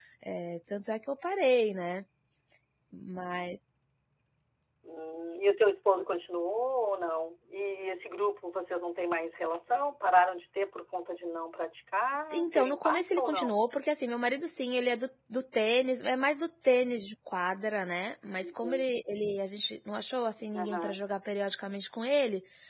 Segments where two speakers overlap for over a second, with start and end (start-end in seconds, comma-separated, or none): 12.4-13.6